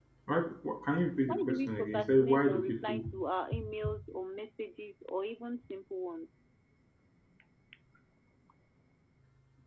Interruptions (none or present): present